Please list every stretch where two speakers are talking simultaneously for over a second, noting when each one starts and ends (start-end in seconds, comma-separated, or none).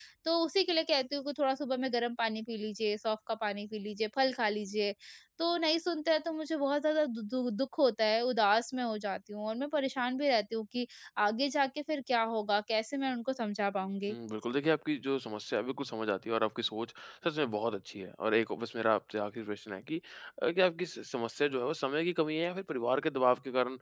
none